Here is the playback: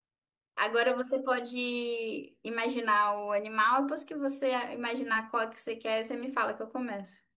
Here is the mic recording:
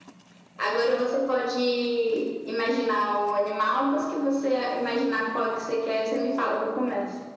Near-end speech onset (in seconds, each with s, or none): none